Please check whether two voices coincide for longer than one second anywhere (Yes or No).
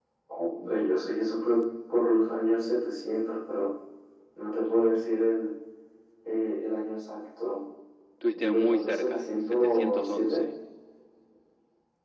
Yes